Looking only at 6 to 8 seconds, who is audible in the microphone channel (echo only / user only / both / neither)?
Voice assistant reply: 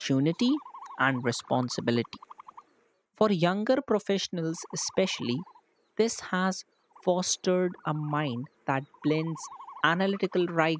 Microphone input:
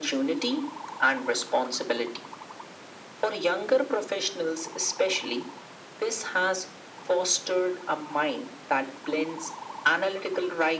echo only